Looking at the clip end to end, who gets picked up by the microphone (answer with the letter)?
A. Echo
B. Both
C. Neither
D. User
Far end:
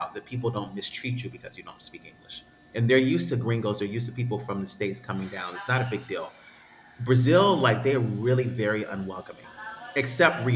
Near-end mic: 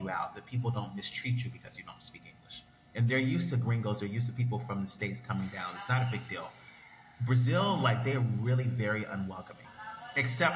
A